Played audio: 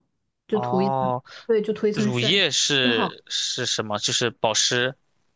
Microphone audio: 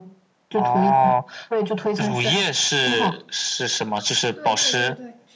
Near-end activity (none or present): present